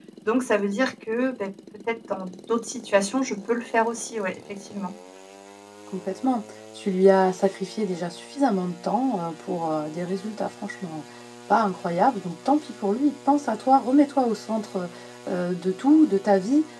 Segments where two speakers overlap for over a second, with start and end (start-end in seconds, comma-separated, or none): none